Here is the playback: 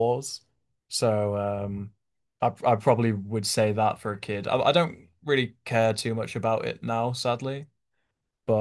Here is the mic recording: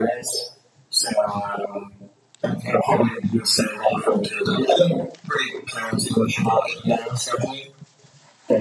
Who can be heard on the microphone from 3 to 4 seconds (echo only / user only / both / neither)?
echo only